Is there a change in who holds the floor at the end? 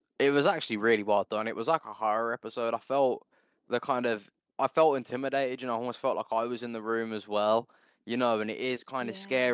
No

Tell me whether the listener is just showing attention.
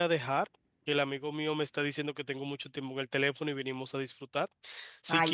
Yes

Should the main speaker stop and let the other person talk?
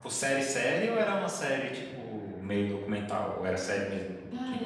Yes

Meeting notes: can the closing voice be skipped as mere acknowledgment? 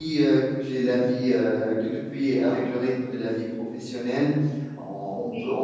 Yes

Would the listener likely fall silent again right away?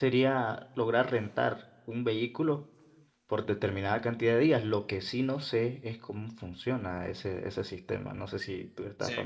No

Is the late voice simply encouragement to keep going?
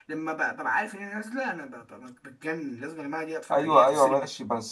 No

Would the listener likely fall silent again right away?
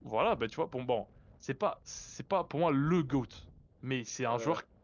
Yes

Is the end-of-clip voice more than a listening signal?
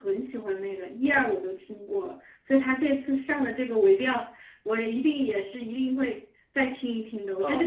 Yes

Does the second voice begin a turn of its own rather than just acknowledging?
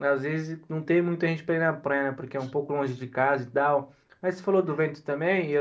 No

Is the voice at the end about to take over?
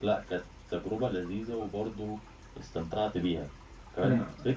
No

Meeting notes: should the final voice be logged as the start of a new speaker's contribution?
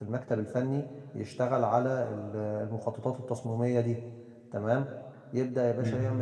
No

